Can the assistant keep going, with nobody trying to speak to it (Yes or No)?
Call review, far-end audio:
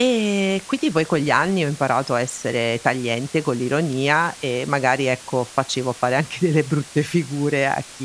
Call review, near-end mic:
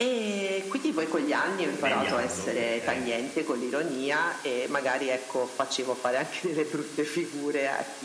No